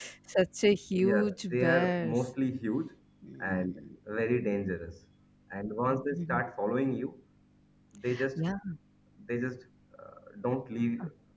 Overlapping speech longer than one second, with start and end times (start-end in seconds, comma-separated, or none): 0.9-2.2